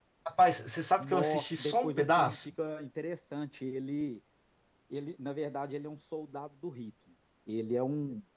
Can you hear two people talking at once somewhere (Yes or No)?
Yes